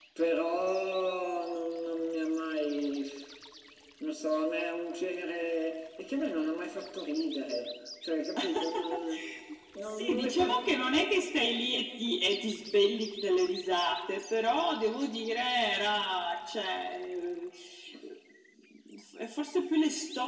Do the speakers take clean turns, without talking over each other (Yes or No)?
No